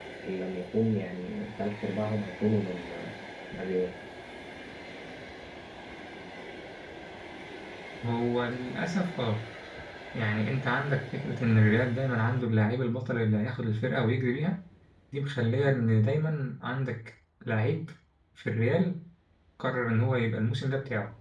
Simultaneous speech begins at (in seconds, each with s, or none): none